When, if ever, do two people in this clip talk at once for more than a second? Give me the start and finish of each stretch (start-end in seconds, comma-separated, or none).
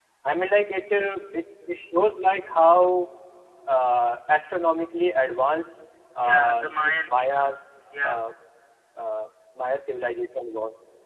6.2-7.5